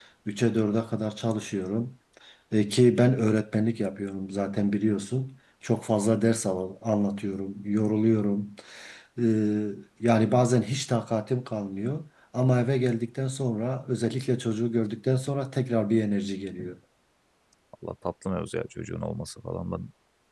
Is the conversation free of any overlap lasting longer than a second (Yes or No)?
Yes